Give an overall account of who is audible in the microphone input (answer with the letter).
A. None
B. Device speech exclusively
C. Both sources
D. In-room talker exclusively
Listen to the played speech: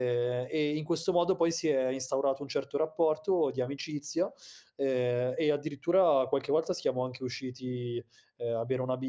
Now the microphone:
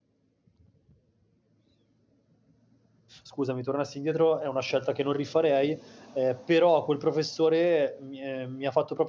D